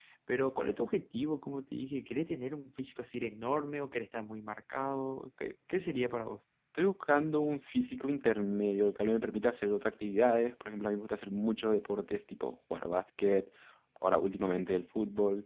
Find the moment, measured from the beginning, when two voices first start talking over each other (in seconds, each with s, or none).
none